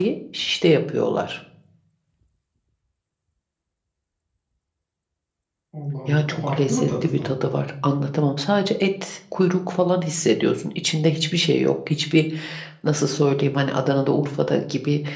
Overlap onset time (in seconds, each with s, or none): 6.1 s